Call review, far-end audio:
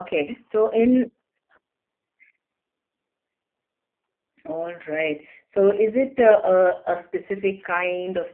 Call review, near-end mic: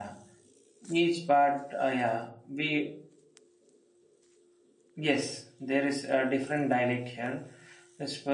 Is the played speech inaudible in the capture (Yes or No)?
Yes